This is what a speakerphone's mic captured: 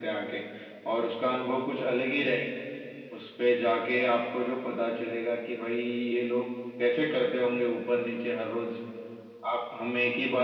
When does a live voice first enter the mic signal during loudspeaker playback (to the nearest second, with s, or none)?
none